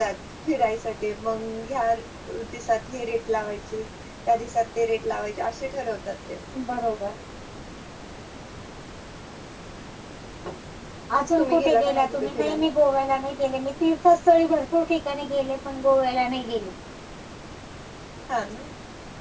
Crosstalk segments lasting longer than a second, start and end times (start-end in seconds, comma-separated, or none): 11.4-12.7